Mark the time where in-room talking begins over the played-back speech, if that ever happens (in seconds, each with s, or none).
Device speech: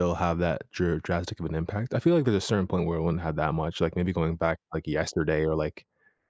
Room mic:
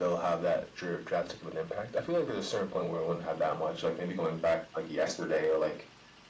none